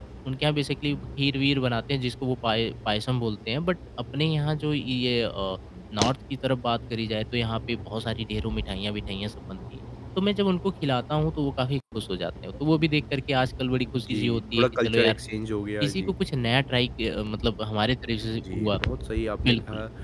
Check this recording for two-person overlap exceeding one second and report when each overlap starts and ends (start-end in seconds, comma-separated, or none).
13.9-15.2